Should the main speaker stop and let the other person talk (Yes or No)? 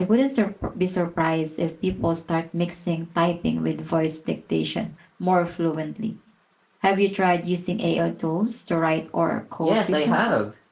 Yes